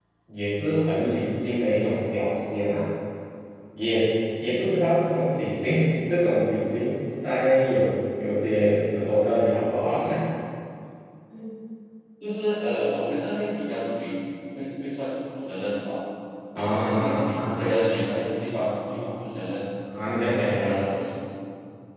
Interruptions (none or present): present